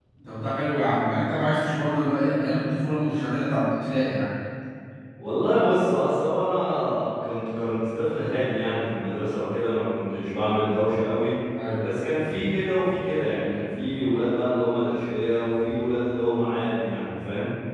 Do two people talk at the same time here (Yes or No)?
No